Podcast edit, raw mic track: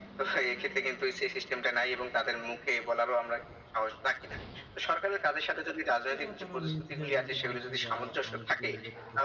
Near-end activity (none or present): present